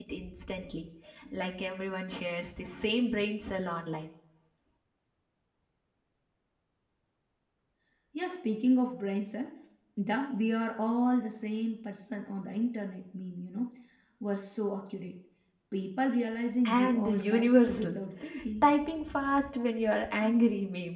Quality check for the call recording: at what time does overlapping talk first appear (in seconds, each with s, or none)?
16.6 s